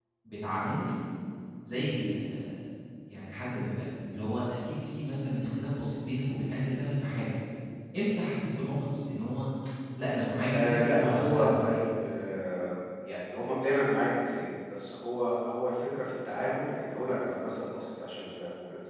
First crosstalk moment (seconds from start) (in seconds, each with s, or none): 10.5 s